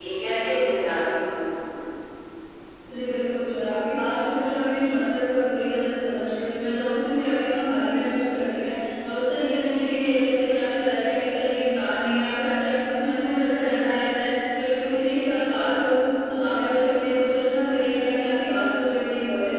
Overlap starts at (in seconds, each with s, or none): none